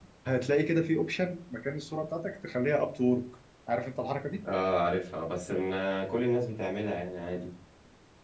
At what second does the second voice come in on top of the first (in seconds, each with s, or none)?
none